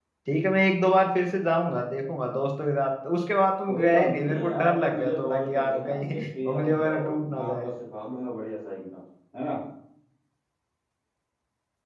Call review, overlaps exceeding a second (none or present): present